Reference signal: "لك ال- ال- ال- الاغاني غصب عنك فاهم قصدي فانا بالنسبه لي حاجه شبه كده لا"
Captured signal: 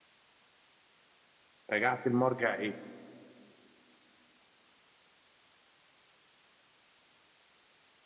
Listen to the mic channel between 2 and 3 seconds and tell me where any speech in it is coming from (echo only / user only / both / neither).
user only